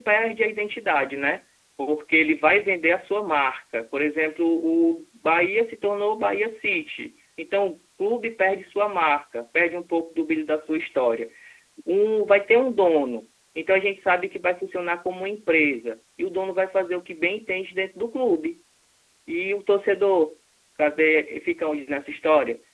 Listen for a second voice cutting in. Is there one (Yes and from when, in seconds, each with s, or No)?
No